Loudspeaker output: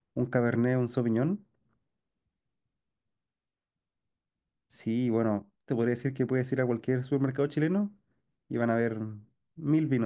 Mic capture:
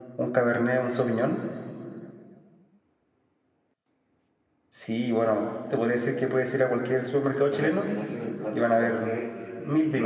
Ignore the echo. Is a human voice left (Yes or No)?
Yes